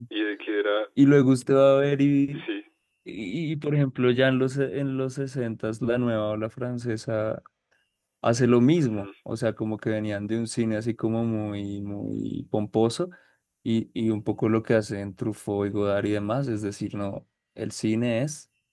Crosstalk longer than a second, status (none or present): none